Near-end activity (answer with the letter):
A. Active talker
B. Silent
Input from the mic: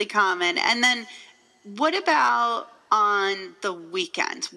B